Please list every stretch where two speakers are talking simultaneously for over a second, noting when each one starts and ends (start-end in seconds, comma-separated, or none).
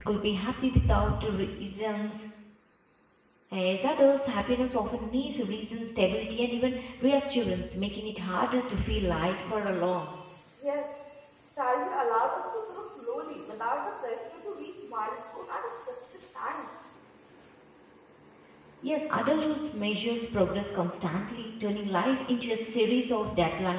none